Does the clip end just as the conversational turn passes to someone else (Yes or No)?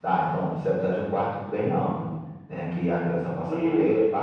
No